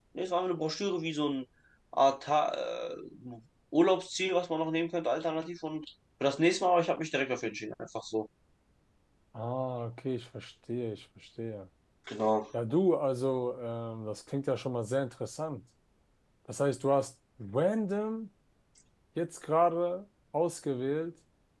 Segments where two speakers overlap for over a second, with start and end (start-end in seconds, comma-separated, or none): none